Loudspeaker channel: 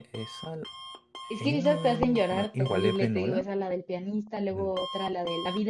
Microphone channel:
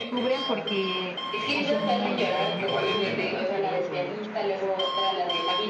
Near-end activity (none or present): present